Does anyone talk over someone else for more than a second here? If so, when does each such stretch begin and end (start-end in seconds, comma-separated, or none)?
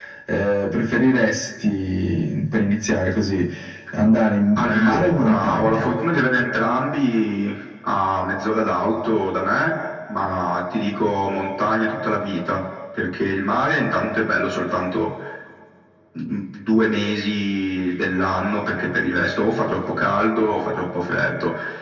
4.5-5.9